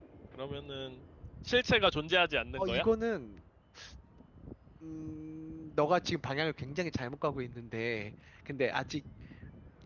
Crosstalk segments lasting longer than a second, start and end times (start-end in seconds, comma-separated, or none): none